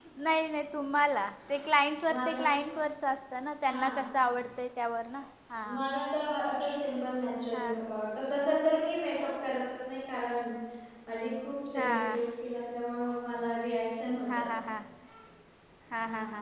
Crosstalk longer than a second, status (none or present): none